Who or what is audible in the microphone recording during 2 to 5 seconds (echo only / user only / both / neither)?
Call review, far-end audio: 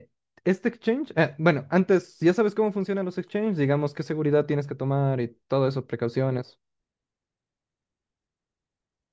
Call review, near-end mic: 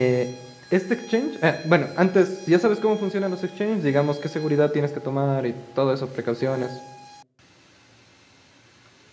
echo only